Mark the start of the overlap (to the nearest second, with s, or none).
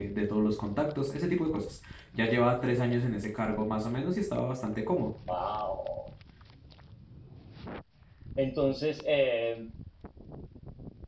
none